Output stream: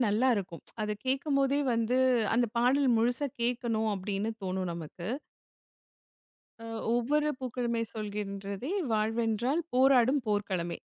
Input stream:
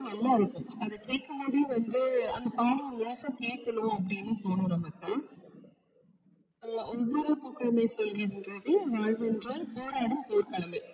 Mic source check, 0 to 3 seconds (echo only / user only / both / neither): echo only